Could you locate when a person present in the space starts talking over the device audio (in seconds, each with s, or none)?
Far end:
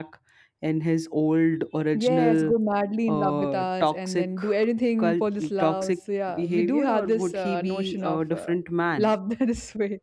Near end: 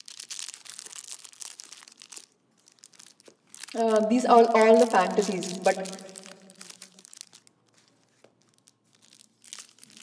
3.7 s